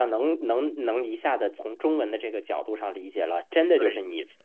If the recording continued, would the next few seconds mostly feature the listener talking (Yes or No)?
No